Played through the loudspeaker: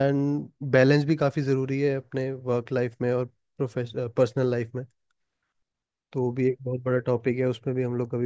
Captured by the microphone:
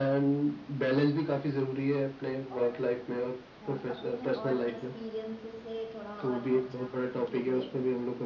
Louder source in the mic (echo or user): echo